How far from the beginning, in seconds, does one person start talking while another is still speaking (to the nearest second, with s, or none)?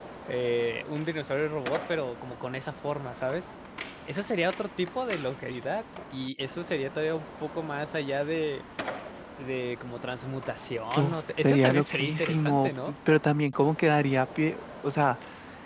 11 s